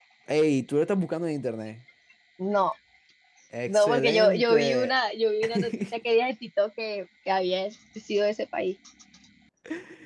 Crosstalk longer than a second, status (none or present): present